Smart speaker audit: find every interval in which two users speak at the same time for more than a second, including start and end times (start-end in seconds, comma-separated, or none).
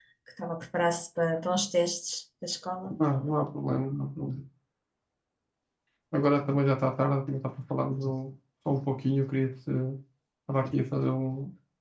none